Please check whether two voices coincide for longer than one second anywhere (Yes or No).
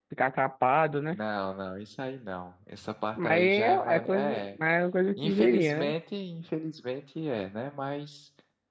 Yes